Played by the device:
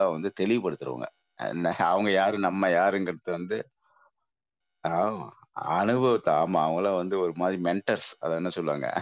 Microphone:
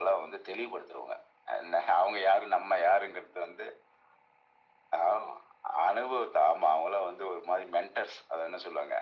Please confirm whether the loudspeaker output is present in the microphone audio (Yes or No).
Yes